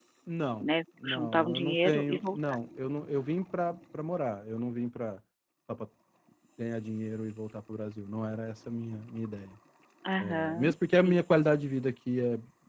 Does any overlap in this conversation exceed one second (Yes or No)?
Yes